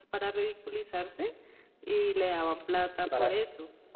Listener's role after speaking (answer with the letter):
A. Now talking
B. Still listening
A